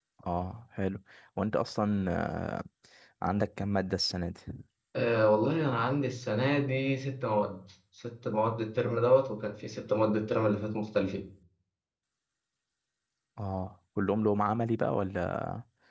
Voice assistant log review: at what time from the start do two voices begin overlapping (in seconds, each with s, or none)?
none